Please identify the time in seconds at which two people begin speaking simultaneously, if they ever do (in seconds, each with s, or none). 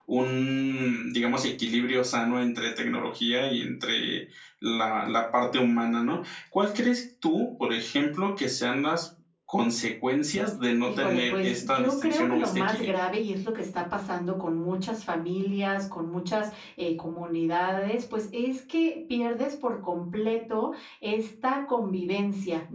10.8 s